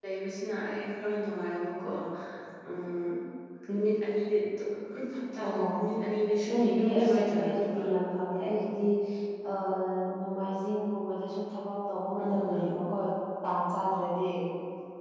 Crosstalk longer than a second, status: present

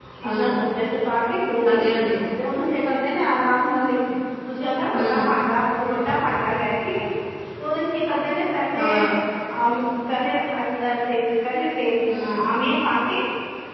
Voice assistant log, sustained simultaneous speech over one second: none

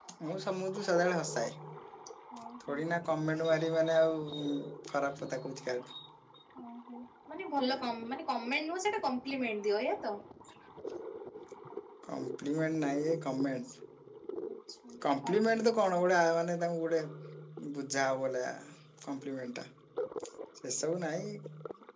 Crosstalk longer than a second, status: none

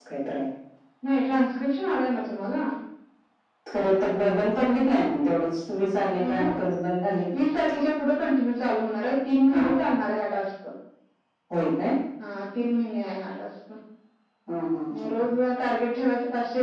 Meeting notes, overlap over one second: none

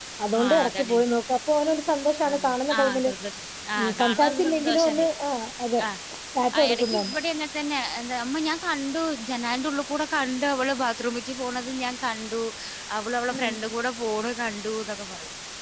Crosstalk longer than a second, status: present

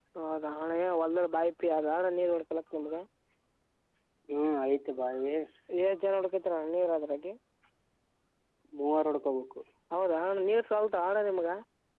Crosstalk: none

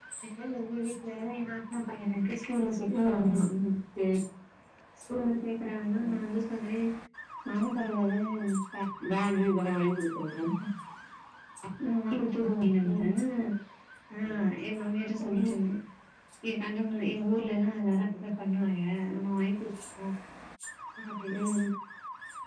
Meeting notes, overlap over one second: none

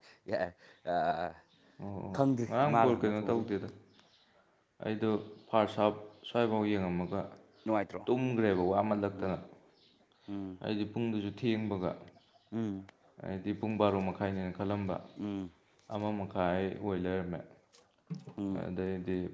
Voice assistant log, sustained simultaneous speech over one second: present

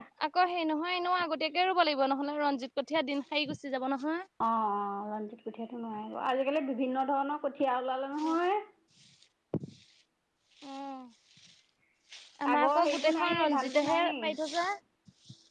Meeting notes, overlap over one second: present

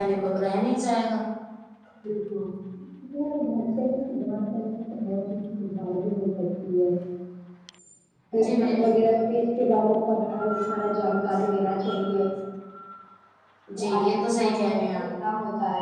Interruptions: present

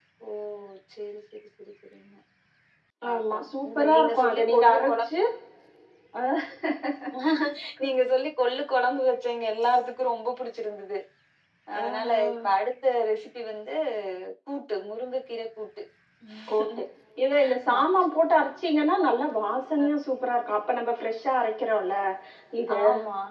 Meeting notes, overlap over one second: present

